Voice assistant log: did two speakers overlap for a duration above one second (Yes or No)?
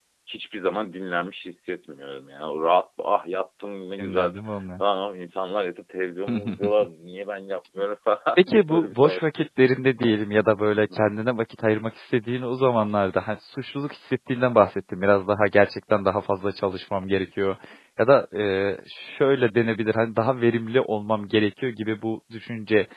Yes